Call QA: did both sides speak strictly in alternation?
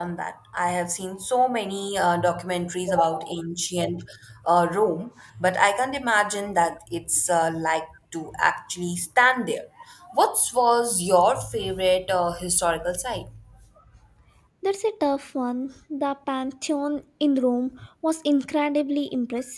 Yes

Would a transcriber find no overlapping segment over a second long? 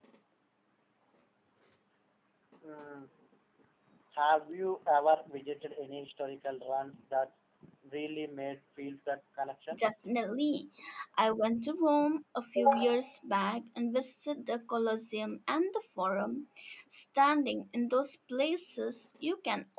Yes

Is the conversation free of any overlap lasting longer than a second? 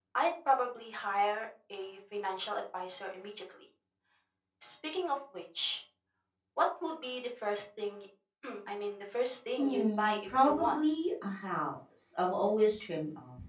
No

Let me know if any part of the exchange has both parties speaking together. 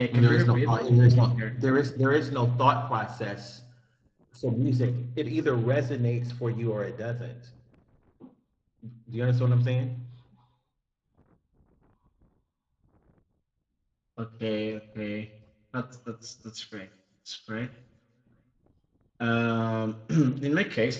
Yes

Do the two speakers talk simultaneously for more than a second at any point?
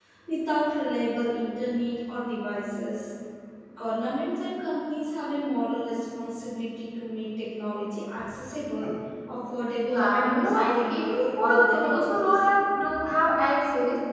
Yes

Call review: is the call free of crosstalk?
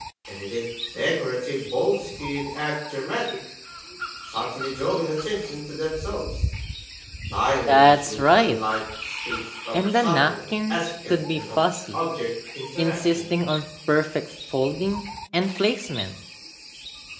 No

